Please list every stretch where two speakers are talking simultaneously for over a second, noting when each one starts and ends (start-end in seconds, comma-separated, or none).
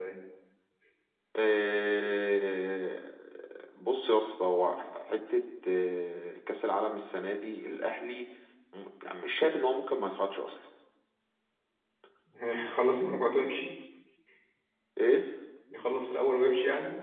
none